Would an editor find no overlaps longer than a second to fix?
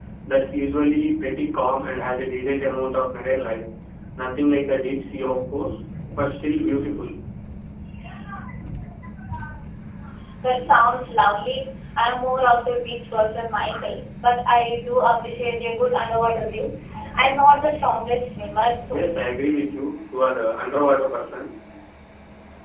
Yes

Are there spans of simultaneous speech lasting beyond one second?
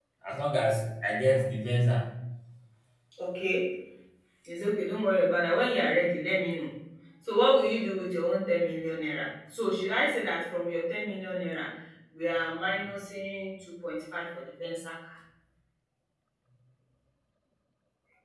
No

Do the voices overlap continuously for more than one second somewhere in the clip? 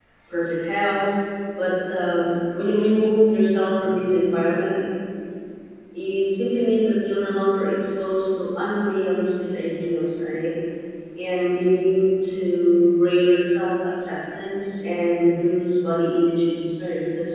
No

